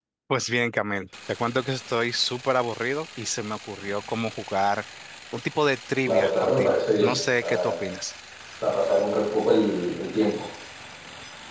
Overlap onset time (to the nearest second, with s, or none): 6 s